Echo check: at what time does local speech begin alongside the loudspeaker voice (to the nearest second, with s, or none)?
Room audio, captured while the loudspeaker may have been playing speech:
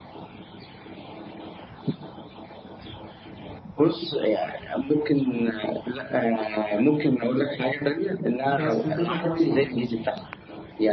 8 s